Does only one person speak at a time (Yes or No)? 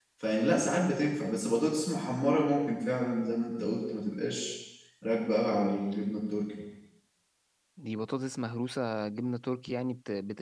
Yes